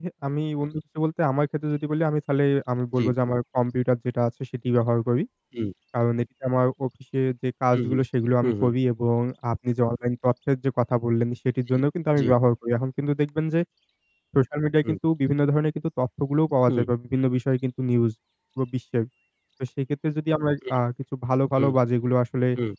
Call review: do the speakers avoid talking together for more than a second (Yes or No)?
Yes